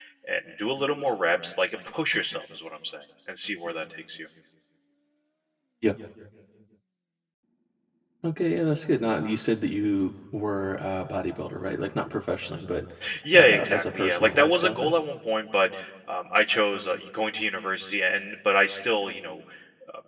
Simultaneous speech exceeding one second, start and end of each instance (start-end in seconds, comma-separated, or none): 13.3-14.9